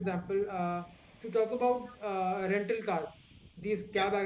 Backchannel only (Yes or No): Yes